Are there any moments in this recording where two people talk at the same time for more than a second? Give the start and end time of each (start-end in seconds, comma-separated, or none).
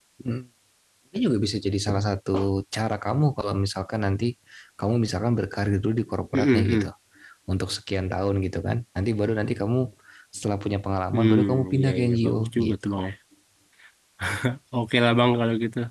11.1-12.9